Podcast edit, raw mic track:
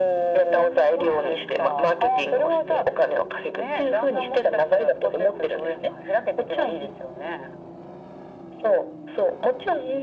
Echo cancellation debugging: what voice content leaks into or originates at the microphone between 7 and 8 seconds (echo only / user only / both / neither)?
echo only